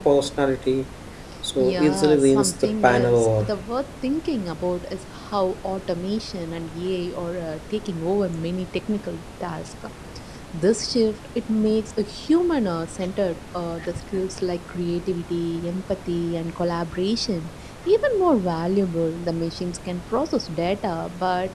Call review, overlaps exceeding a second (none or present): present